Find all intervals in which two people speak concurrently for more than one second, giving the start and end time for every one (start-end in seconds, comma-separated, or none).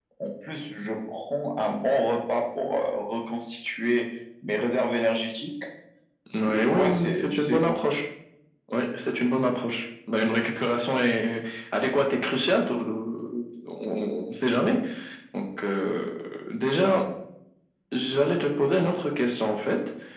6.5-7.8